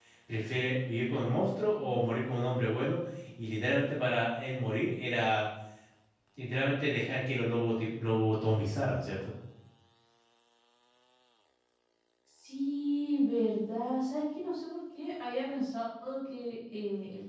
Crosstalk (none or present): none